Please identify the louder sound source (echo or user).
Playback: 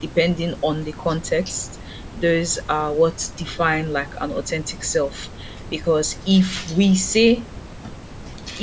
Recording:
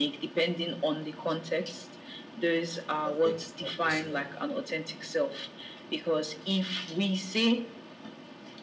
echo